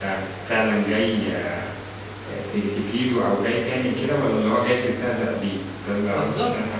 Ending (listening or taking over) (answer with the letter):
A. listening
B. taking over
B